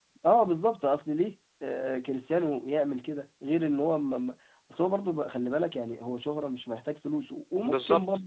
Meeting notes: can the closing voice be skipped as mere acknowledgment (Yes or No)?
Yes